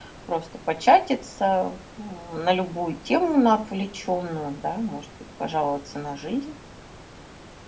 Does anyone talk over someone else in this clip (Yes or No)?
No